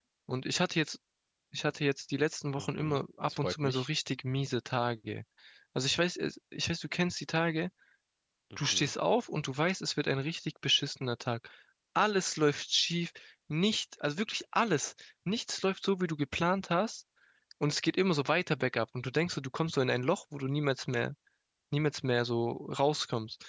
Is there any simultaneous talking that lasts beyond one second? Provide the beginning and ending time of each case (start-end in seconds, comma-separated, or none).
2.6-3.9